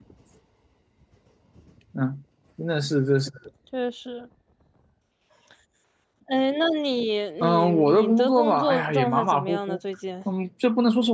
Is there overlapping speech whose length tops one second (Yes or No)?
Yes